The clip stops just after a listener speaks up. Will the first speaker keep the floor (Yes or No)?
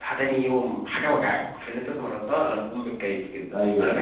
No